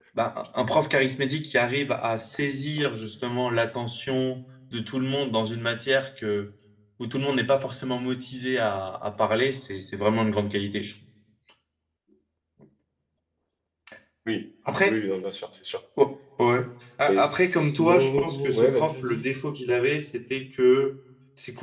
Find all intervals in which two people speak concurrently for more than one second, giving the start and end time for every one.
17.1-19.2

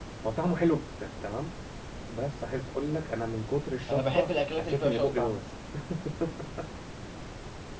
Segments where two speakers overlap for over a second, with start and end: 3.9-5.4

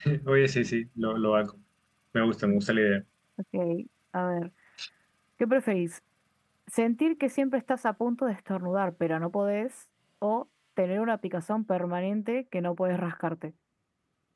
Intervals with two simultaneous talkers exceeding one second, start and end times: none

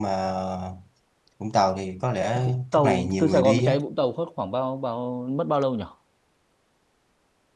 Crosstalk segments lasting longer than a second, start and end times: 2.4-3.7

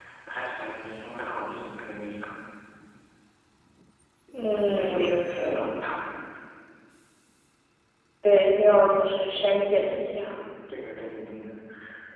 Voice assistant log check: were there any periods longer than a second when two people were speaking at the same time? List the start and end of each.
4.3-5.7

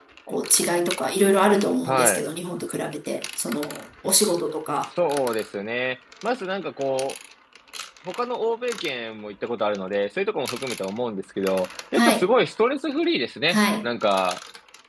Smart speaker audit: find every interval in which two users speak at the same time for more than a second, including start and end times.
none

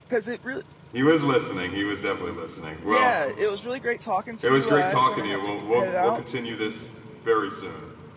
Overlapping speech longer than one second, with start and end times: 4.4-6.2

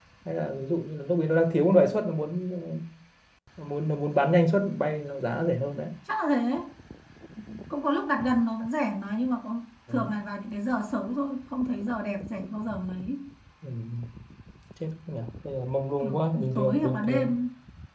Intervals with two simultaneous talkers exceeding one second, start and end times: 16.0-17.3

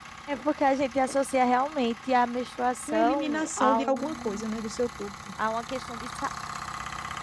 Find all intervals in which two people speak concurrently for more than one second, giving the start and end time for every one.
2.9-4.7

